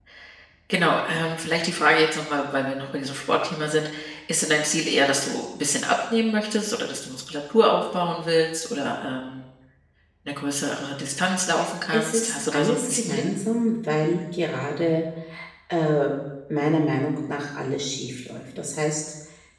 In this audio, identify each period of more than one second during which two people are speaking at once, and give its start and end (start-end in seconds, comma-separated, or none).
11.9-13.3